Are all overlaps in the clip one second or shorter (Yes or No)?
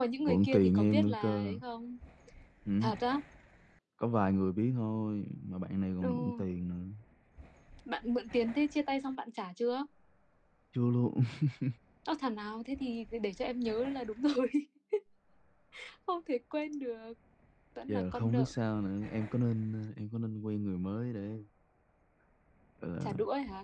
No